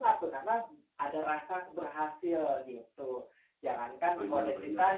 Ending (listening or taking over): listening